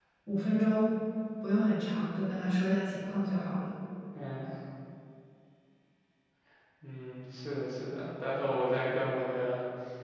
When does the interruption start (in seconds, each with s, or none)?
none